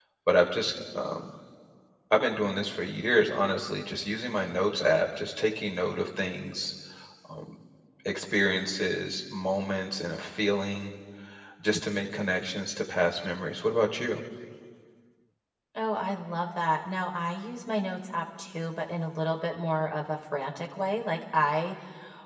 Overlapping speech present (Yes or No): No